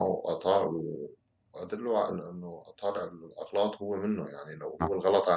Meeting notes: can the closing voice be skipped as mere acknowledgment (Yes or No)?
Yes